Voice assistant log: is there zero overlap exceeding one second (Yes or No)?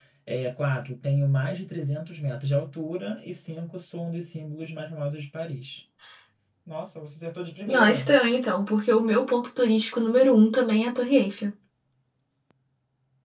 Yes